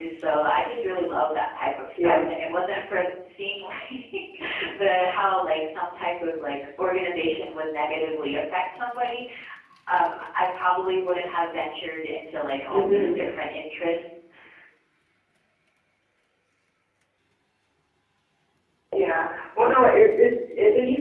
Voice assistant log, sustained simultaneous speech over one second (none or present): none